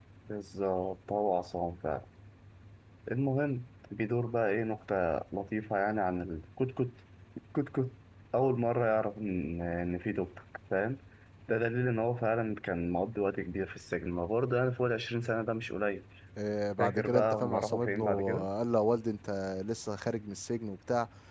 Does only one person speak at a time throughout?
No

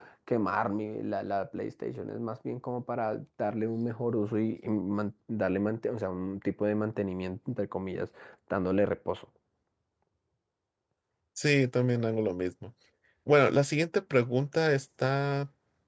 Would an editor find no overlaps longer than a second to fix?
Yes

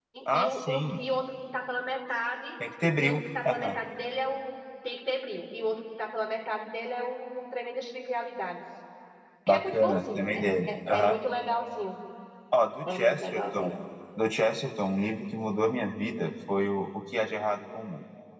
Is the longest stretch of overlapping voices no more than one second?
No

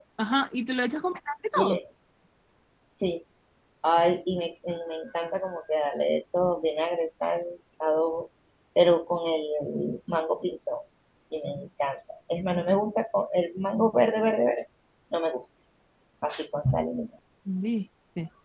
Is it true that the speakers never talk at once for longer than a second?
Yes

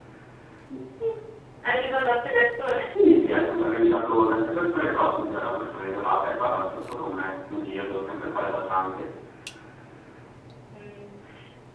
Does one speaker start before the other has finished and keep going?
No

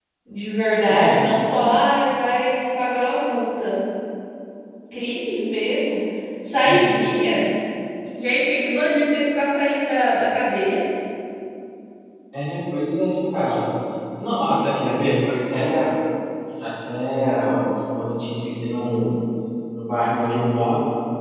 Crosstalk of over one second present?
No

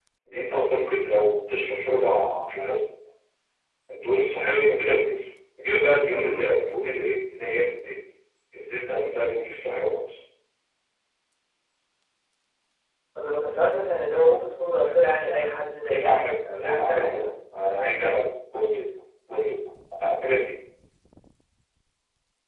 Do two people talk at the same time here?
Yes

